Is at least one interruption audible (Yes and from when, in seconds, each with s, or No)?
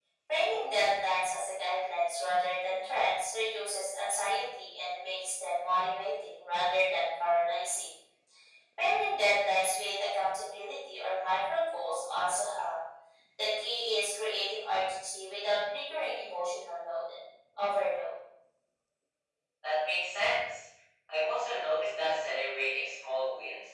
No